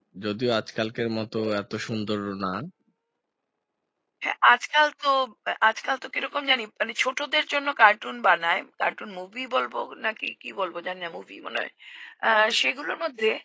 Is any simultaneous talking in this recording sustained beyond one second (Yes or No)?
No